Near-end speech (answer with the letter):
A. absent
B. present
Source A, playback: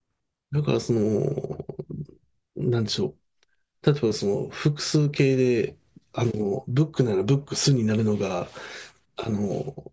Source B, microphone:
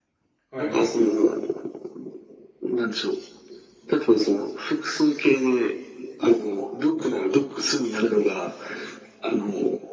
B